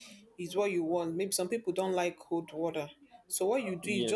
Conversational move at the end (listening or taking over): listening